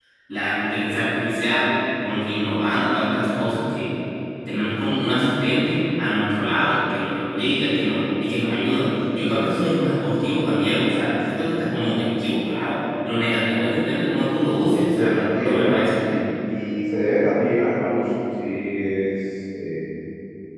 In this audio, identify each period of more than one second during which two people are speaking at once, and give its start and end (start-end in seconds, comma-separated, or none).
14.7-15.9